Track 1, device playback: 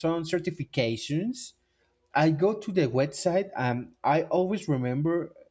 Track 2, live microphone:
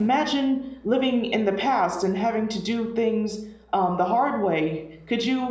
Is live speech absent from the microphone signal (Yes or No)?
No